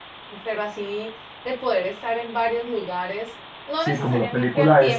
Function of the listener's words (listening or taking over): taking over